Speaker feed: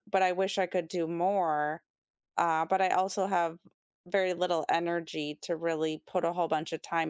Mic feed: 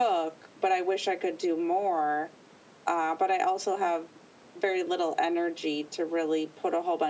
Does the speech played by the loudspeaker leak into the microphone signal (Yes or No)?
Yes